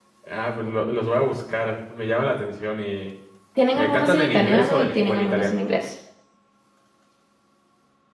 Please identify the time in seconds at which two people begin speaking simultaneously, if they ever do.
4 s

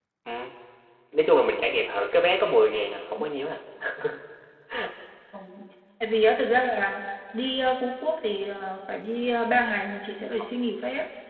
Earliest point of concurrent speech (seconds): none

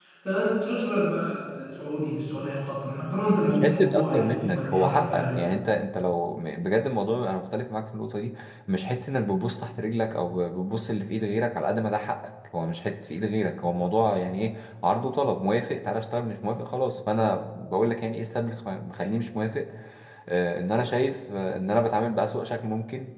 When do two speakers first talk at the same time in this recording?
3 s

